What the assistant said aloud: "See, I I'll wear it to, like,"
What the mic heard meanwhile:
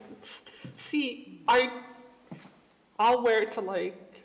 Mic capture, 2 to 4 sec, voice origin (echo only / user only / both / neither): echo only